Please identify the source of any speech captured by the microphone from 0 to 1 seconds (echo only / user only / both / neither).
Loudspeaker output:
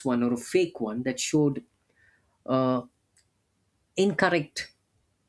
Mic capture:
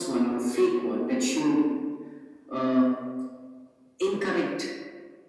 echo only